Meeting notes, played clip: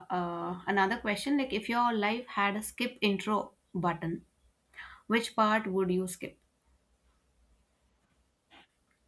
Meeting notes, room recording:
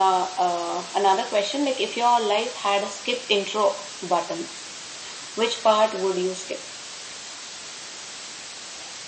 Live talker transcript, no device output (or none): none